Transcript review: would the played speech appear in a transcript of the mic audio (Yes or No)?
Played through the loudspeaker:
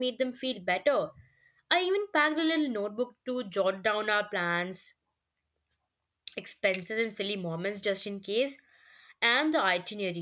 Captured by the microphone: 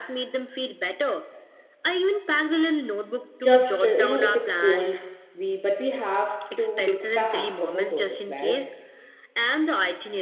Yes